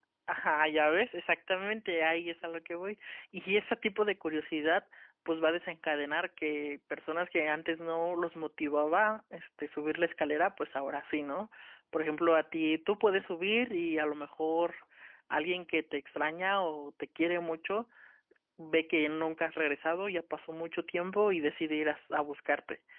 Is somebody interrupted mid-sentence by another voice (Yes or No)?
No